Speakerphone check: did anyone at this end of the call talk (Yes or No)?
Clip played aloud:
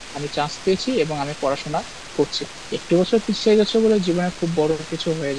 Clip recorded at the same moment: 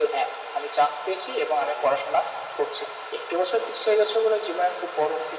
No